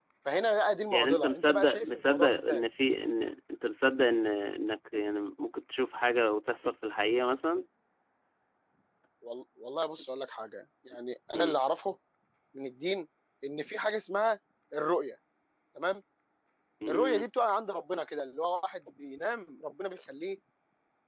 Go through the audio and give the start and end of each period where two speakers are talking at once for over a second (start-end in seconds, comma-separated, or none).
0.9-2.6